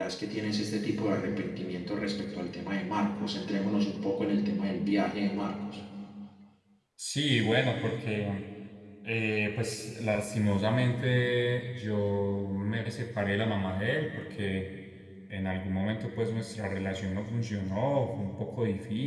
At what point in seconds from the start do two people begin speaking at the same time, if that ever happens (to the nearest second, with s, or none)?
none